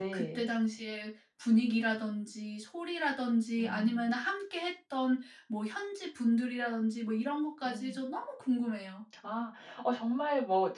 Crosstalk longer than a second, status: none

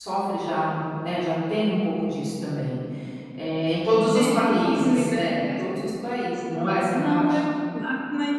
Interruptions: present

